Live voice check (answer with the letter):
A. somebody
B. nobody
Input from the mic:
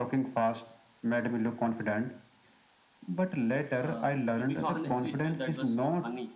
B